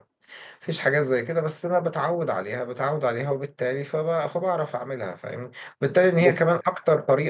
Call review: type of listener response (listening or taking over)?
listening